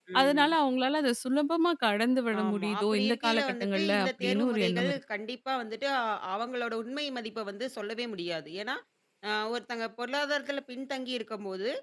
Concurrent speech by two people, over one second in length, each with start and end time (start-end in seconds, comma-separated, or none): 2.4-5.0